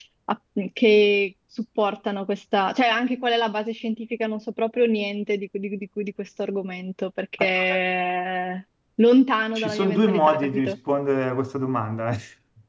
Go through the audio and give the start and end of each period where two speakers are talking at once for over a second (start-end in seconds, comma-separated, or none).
9.6-10.8